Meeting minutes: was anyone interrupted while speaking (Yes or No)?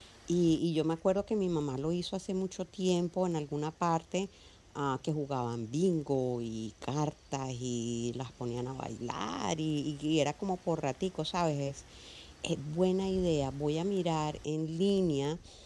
No